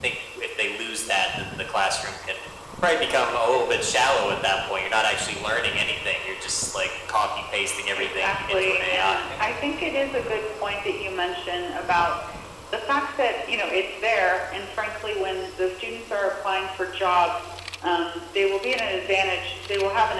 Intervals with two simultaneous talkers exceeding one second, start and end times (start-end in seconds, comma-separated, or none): 8.0-9.4